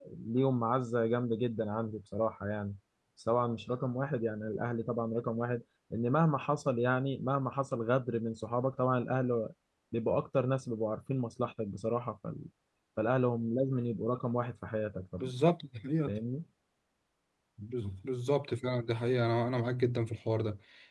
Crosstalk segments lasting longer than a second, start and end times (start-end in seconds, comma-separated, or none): none